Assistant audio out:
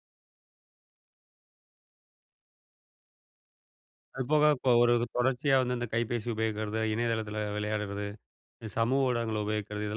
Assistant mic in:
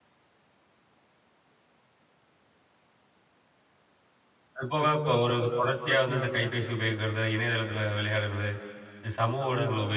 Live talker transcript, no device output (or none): none